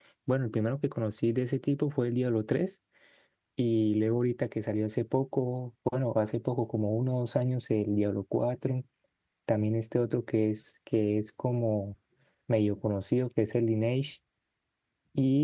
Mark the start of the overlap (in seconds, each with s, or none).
none